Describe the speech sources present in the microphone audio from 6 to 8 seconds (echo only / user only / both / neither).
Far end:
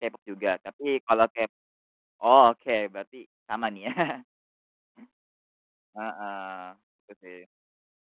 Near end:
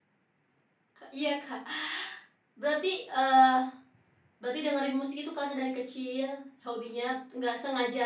user only